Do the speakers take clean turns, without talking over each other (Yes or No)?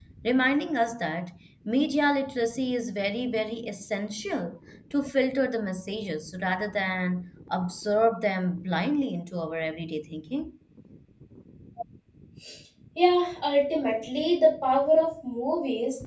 Yes